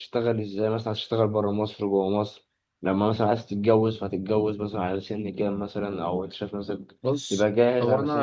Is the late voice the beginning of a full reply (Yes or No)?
Yes